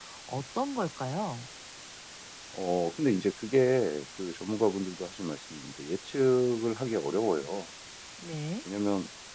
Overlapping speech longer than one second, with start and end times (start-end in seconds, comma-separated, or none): none